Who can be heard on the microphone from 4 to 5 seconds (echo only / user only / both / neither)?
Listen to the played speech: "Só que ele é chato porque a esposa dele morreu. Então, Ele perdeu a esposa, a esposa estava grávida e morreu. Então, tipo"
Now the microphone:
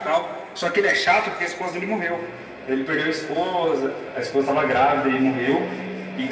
echo only